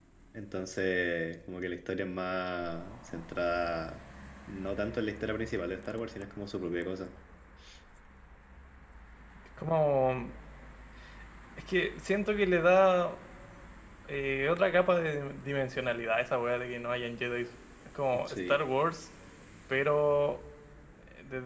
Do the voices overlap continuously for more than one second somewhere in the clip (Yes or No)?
No